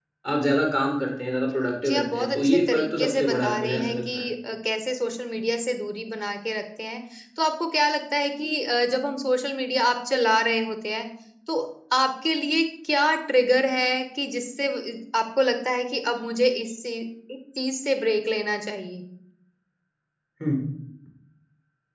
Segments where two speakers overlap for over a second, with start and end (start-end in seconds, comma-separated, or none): 1.8-4.2